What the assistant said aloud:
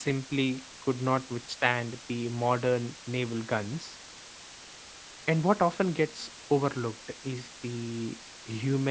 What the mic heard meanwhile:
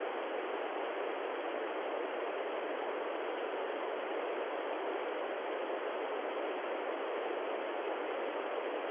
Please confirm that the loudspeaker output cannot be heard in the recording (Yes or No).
Yes